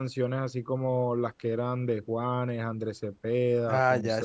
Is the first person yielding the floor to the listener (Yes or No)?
Yes